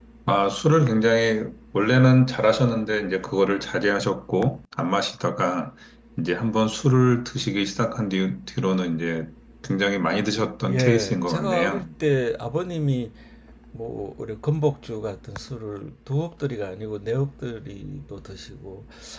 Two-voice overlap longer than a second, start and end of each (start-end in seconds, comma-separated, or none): 10.6-11.9